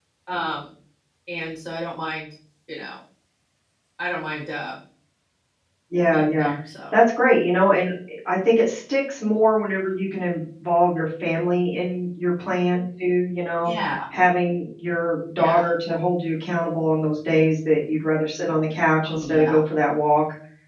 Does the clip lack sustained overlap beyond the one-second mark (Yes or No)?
Yes